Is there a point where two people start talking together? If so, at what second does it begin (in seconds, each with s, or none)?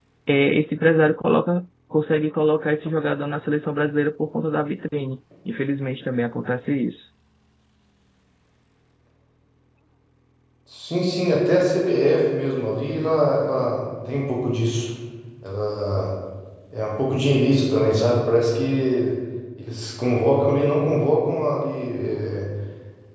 none